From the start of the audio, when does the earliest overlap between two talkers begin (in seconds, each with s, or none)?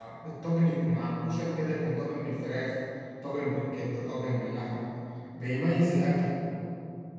none